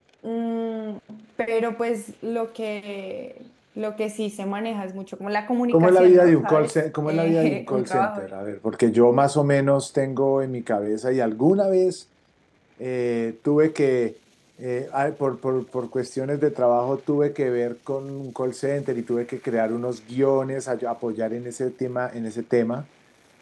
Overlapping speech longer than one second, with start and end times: 5.7-8.3

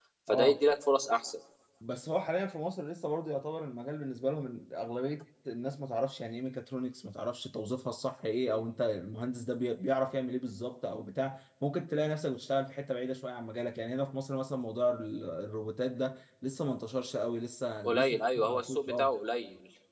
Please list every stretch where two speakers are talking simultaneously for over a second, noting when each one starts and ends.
17.8-19.1

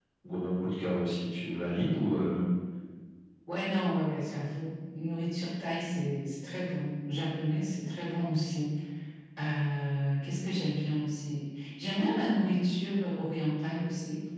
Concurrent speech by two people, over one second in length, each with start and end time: none

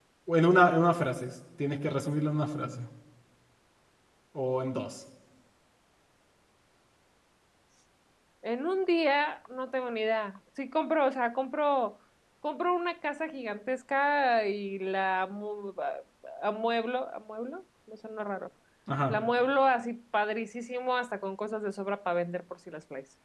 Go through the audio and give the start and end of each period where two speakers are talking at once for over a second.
none

